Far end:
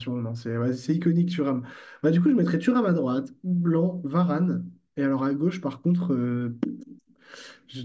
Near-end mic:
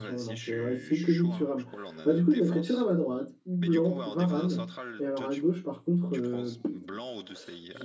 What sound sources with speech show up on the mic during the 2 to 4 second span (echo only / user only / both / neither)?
both